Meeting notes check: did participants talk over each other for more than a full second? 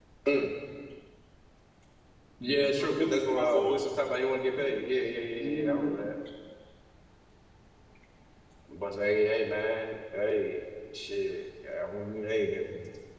Yes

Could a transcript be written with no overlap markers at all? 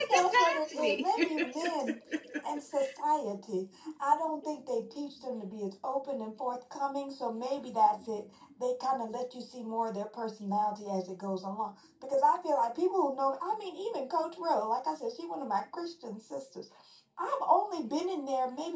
No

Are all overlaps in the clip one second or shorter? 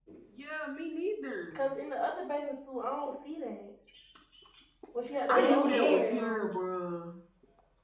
No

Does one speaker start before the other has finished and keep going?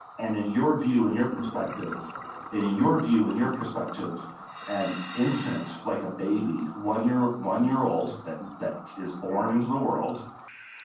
No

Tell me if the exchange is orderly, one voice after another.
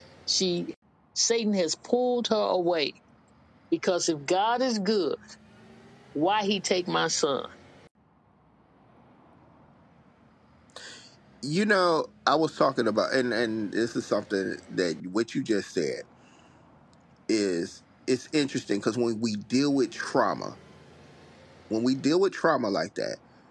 Yes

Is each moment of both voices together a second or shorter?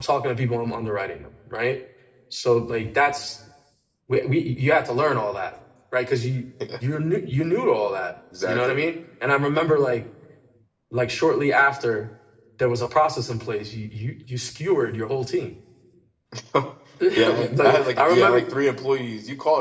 No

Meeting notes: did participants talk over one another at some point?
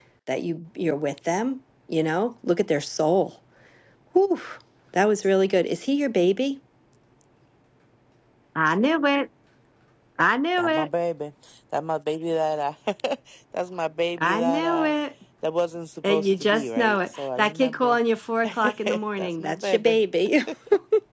Yes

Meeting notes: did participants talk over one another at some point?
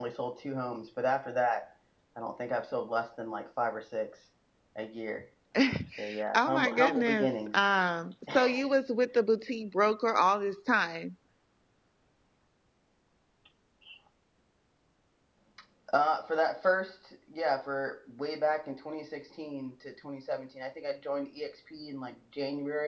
Yes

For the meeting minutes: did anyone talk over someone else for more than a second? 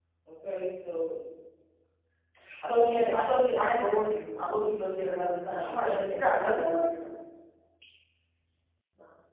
Yes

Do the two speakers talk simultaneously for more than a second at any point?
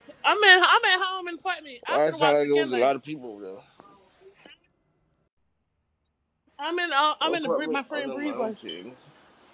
Yes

